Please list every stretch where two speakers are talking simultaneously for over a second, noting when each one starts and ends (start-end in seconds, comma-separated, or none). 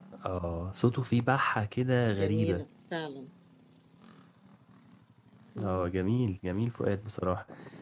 none